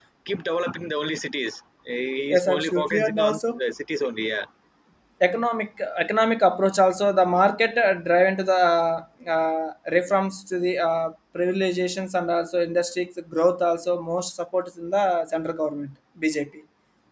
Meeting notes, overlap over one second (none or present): present